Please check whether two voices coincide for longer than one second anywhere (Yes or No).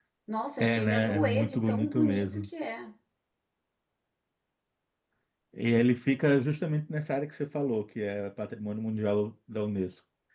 Yes